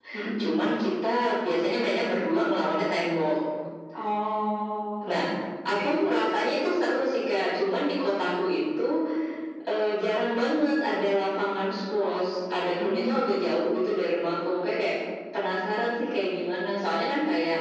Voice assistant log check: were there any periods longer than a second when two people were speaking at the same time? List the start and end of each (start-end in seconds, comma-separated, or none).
none